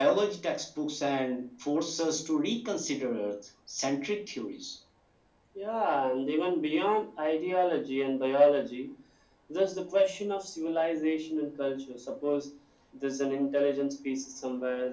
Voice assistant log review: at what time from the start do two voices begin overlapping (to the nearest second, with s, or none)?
none